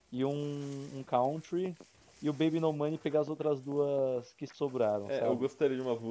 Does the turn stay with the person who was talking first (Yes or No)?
No